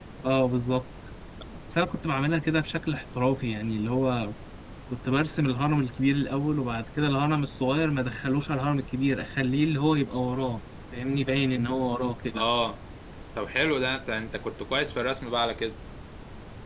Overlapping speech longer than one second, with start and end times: none

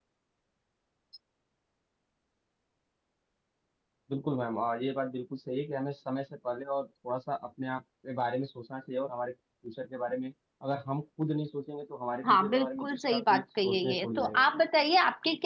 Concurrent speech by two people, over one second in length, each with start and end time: 12.2-14.5

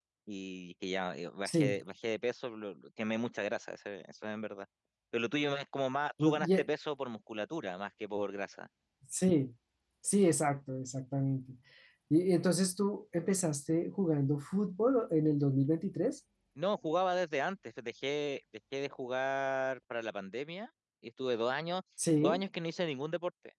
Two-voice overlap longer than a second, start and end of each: none

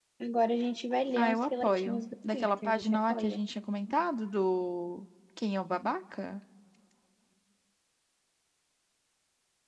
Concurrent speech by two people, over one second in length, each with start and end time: 1.2-3.4

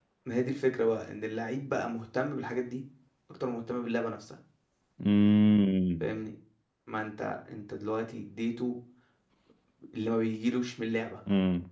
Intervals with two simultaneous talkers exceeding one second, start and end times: none

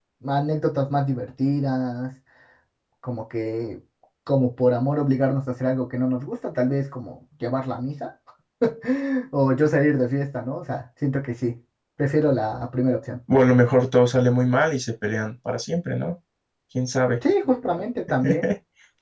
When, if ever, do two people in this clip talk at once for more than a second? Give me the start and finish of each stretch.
none

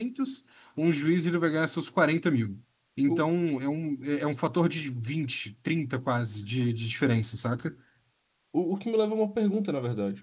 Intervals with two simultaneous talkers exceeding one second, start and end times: none

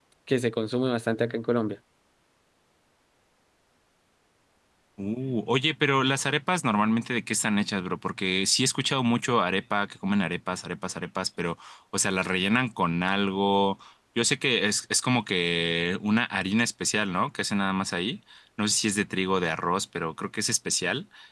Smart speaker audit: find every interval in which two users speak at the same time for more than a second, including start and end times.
none

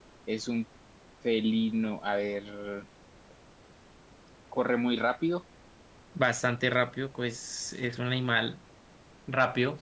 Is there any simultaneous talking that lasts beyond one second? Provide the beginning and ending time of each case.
none

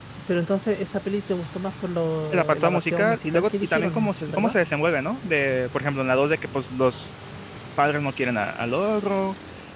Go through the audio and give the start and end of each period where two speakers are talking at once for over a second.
2.3-4.6

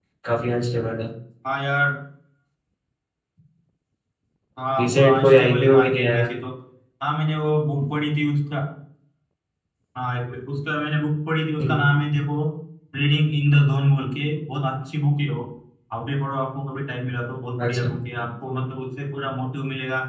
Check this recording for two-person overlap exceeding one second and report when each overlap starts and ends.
4.8-6.3

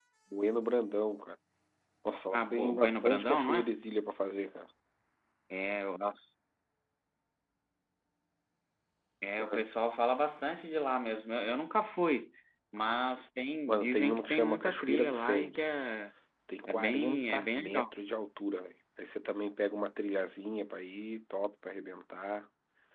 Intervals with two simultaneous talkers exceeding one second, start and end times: 2.3-3.7, 13.7-15.8, 16.7-17.9

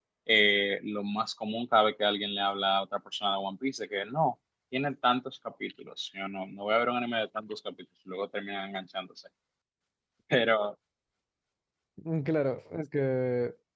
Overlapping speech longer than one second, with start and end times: none

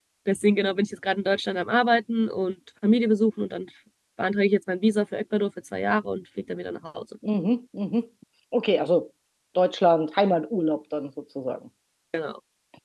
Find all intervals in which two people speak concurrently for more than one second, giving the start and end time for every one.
none

